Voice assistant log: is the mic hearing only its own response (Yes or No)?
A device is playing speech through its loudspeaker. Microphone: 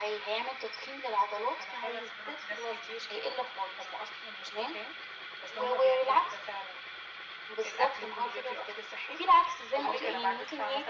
Yes